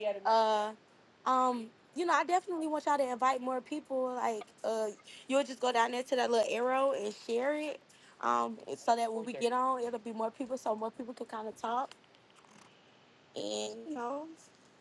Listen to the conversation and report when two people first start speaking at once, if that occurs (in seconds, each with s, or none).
none